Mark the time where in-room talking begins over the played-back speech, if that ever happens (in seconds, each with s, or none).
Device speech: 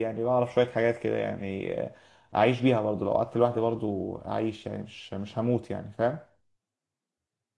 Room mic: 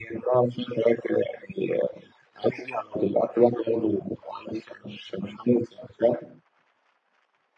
none